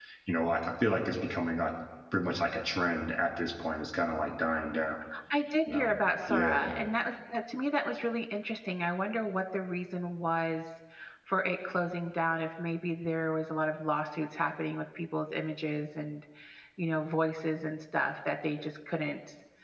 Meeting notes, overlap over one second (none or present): none